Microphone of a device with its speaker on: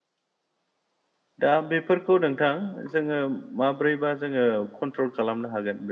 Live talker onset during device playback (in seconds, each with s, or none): 1.4 s